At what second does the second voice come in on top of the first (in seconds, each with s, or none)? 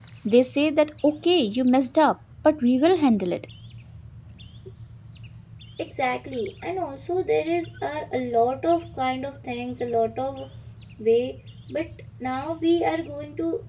none